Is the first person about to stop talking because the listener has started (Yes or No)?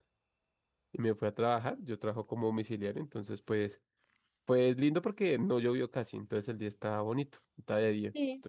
No